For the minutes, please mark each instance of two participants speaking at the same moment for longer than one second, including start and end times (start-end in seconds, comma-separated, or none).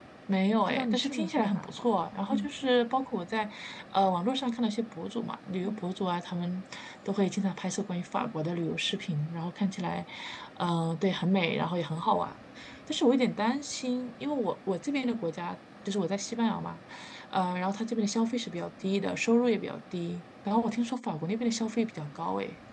0.6-1.9